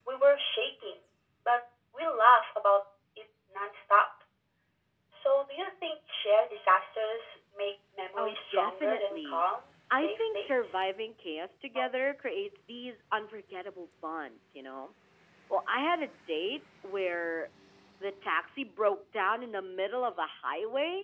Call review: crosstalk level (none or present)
present